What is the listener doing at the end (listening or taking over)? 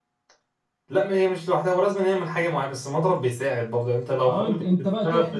taking over